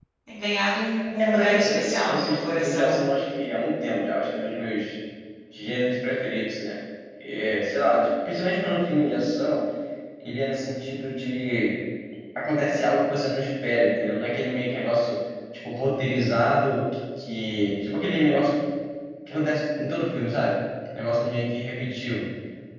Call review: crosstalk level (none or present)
present